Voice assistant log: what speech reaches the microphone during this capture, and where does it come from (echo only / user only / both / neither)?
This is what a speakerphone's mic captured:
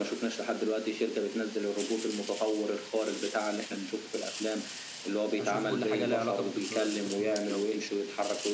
both